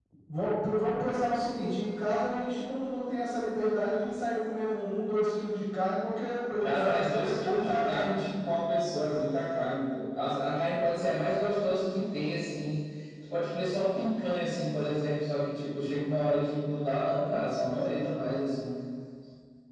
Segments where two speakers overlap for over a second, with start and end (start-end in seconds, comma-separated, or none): 6.6-8.0